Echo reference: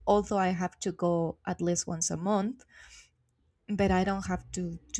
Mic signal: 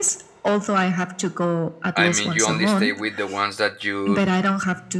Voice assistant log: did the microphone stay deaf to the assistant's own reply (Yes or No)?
No